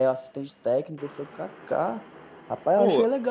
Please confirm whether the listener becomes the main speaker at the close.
No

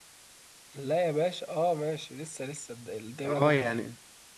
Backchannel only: No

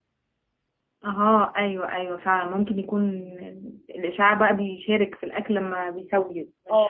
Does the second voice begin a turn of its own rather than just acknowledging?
Yes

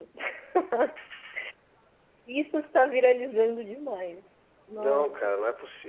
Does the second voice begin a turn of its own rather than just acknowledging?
Yes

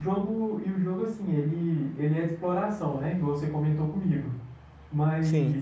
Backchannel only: Yes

